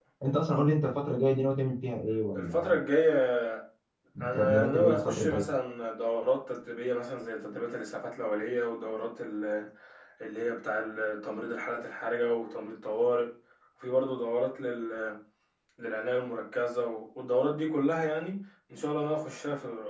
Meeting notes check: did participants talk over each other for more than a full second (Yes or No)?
Yes